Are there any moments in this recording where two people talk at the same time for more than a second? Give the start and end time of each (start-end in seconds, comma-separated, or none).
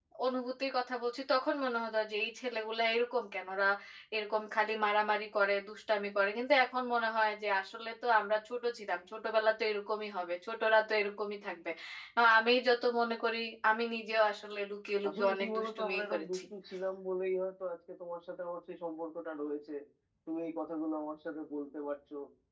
15.1-16.4